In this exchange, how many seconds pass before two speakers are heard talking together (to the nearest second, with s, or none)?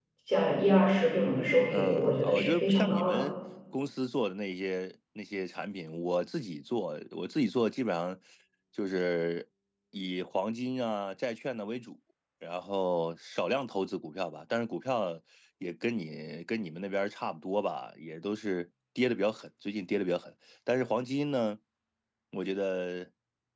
2 s